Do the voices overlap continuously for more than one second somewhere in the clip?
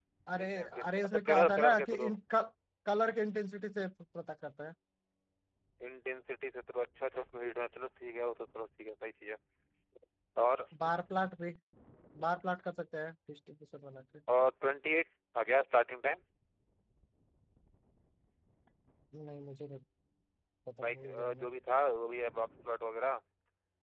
Yes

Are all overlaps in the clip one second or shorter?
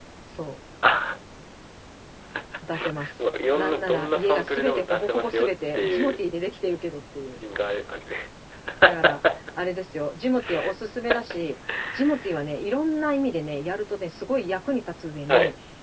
No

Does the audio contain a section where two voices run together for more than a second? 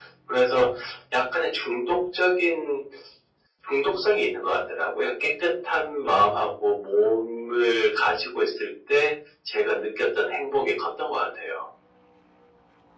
No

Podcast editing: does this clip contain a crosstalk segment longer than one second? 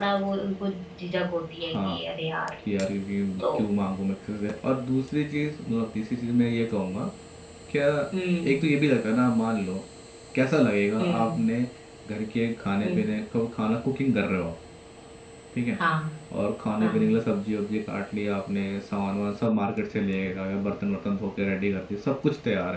No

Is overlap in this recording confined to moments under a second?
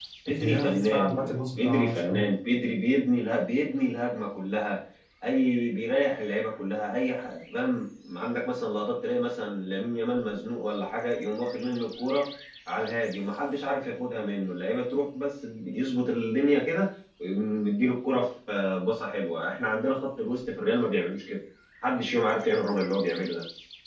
No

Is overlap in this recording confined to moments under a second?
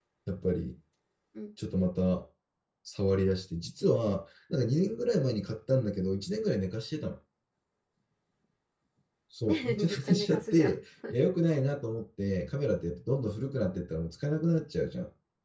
No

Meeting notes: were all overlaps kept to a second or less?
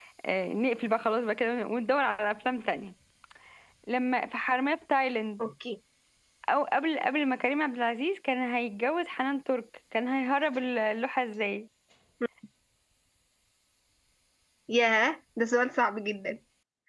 Yes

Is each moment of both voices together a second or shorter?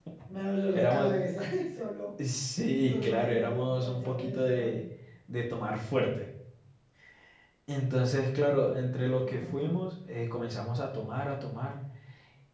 No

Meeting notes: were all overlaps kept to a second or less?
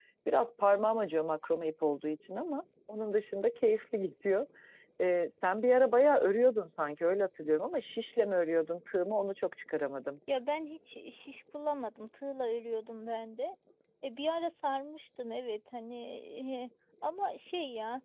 Yes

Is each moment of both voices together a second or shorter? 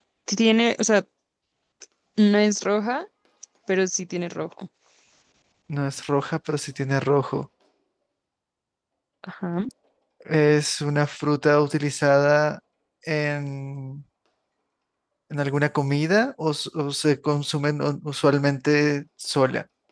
Yes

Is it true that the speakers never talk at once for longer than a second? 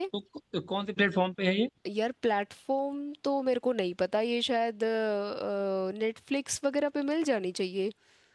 Yes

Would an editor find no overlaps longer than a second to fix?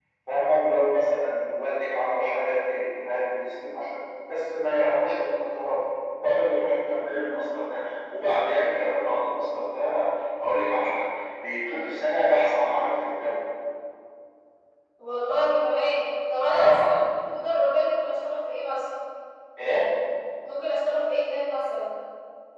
Yes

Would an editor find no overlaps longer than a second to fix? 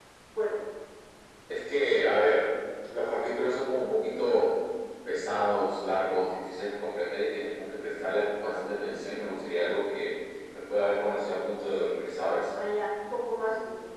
Yes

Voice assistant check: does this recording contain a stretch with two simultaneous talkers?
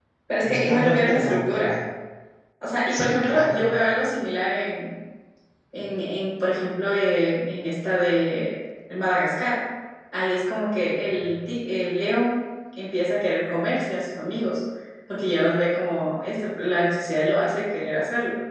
Yes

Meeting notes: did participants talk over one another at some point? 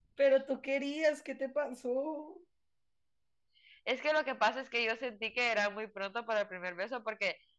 No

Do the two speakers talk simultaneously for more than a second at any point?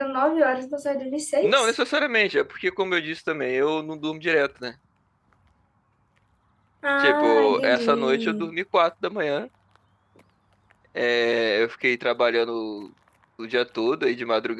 Yes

